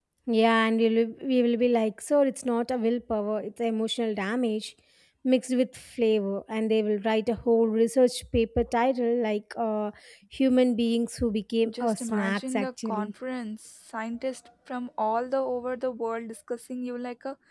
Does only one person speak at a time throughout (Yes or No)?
No